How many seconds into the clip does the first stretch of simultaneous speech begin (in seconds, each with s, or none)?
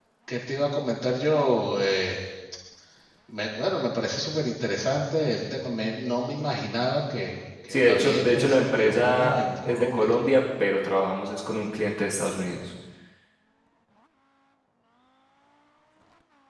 7.7 s